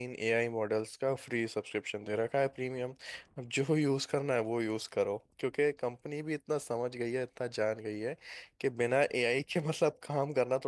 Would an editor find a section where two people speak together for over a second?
No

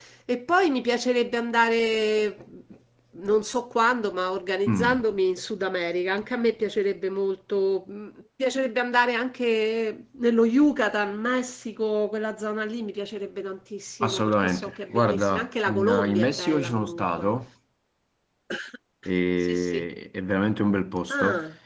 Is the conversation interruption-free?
No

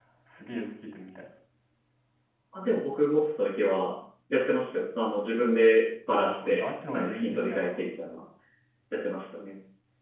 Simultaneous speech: Yes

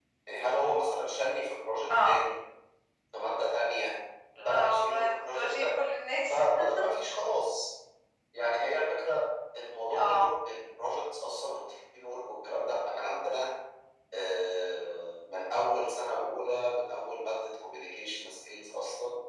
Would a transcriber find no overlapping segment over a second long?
No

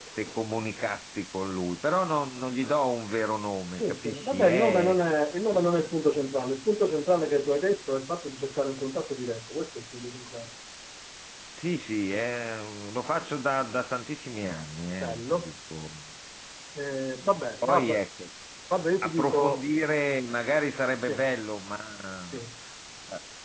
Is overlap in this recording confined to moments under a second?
No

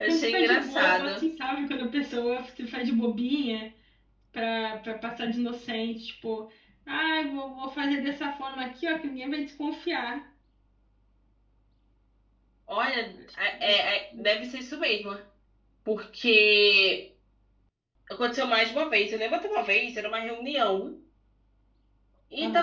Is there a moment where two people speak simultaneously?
Yes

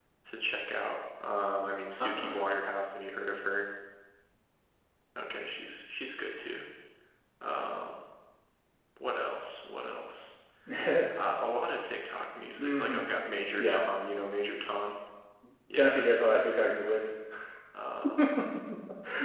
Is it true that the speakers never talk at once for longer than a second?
No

